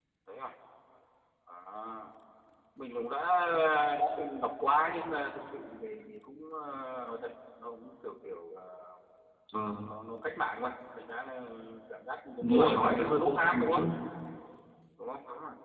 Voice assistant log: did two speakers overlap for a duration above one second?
Yes, from 12.4 s

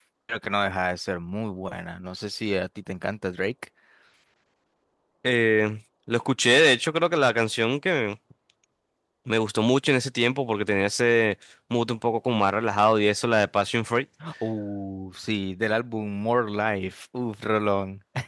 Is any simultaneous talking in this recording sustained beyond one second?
No

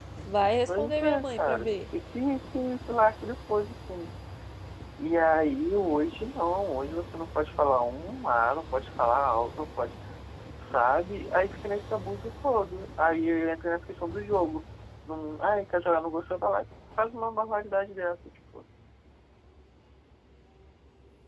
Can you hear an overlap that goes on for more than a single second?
Yes, from 0.7 s

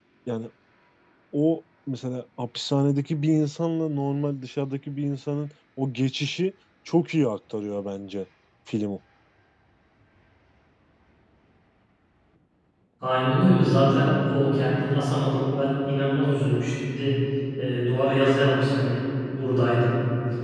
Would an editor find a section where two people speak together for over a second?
No

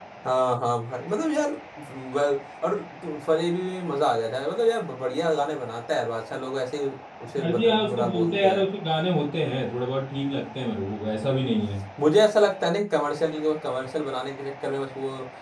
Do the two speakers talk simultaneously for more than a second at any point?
Yes, from 7.4 s

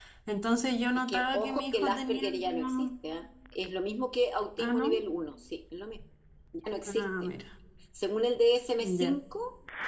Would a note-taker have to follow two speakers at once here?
Yes, from 1.1 s

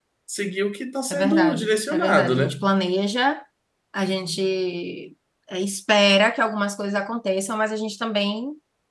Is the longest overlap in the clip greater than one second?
Yes, from 1.1 s

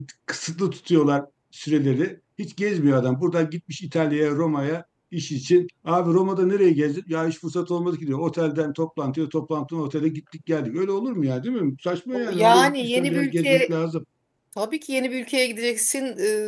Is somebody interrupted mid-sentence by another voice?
Yes, from 12.1 s

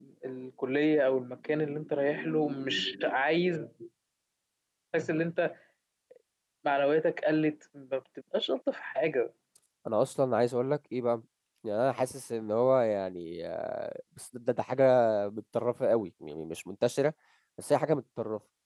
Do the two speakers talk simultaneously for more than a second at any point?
No

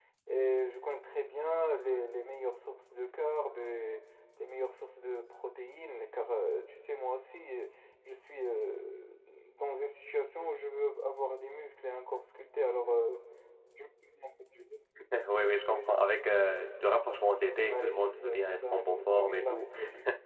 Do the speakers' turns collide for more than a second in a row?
Yes, from 17.7 s

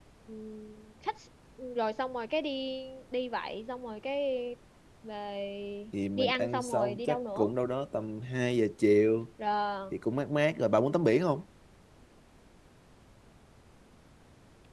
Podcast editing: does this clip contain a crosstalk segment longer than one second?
Yes, from 6.2 s

